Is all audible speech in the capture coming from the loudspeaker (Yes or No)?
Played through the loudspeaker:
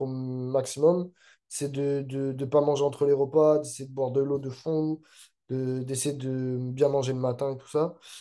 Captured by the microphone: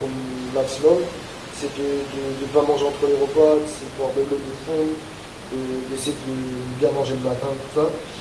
Yes